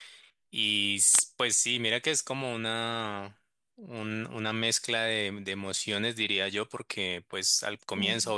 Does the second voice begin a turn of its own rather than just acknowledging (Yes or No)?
No